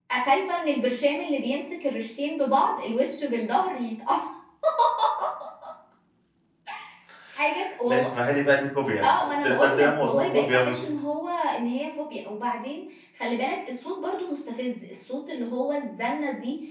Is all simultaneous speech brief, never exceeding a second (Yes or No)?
No